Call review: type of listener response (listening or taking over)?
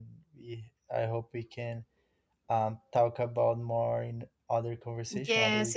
taking over